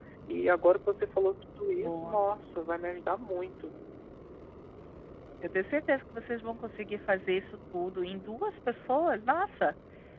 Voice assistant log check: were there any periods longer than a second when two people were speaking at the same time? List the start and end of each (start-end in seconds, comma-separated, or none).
none